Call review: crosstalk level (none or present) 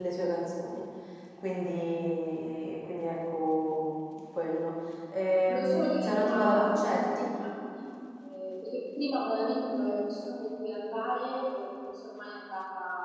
present